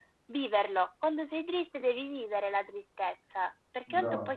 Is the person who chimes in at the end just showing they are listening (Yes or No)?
Yes